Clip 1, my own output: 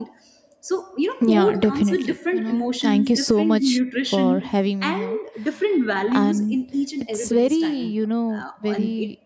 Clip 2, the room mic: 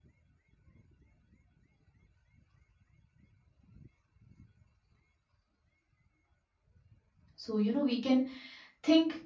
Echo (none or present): none